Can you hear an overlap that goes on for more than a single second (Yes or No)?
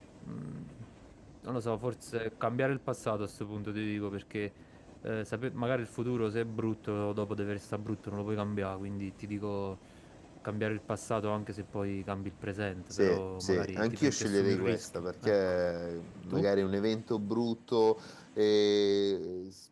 Yes